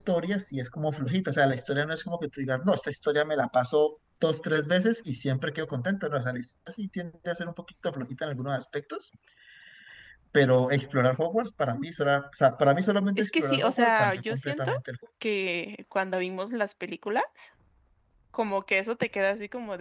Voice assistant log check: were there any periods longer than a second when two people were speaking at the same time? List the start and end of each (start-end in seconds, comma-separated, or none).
13.2-14.7